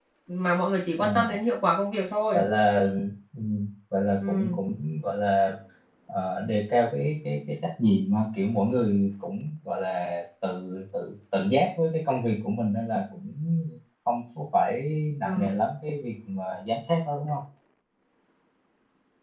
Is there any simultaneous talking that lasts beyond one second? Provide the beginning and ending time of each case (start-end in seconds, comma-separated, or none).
none